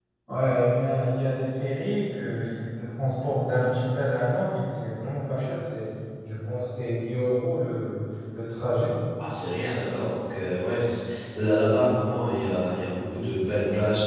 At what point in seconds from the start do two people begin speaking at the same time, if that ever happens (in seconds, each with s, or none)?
none